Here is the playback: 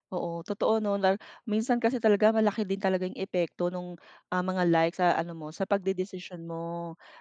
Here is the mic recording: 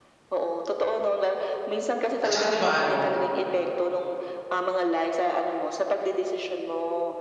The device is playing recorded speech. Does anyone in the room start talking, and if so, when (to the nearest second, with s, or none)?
2 s